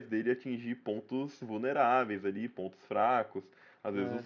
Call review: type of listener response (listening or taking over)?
listening